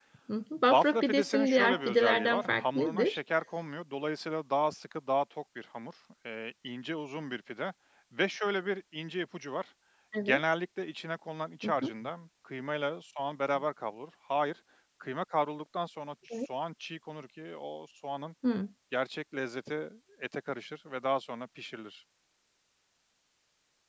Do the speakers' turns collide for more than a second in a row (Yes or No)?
Yes